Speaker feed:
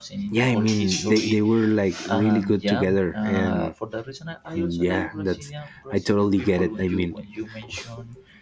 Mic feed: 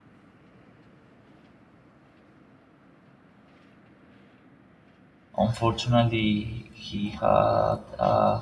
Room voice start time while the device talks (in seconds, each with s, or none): 5.5 s